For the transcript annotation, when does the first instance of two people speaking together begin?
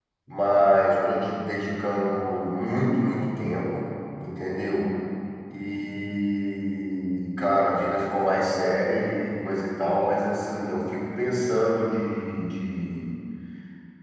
none

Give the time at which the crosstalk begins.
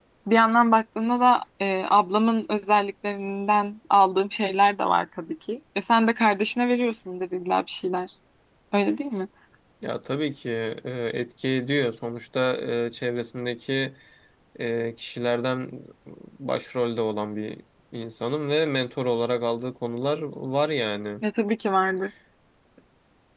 none

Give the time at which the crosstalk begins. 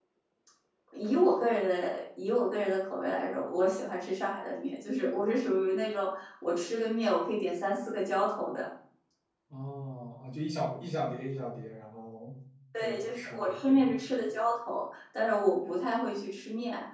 13 s

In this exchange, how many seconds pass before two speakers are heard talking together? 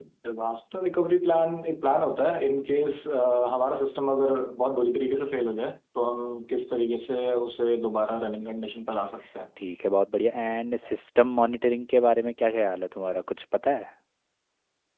none

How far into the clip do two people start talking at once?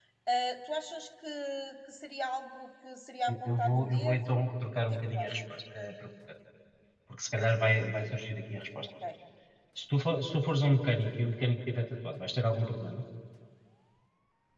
3 s

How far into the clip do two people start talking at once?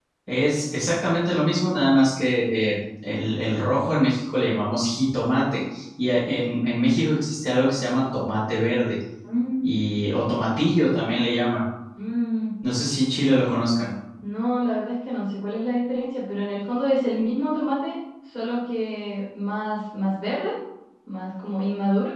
none

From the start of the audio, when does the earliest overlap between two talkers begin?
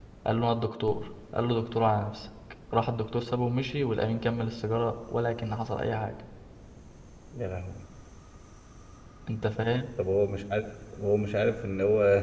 none

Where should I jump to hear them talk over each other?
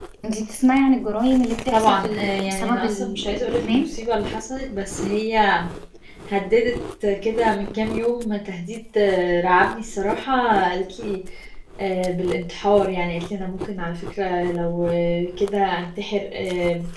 2 s

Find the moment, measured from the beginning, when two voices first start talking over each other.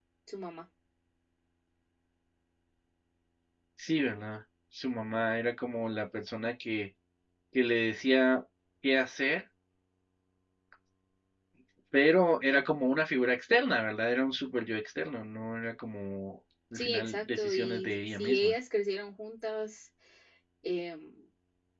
17 s

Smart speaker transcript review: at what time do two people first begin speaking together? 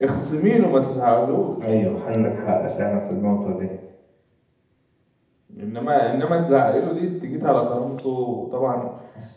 none

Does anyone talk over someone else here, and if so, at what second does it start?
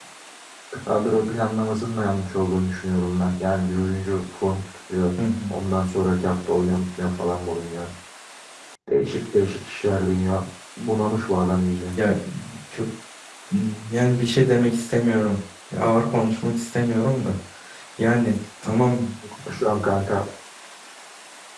none

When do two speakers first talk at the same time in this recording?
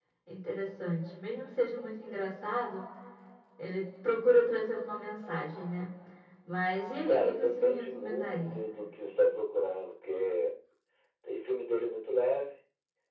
7 s

